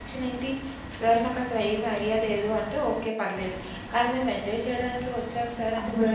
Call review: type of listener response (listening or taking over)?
taking over